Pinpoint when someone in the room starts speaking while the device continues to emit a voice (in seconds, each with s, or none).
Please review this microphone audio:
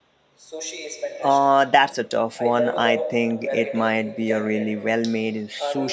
1.2 s